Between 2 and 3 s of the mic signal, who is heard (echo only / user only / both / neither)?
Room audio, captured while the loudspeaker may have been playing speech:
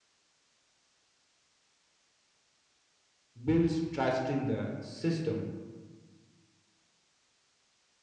neither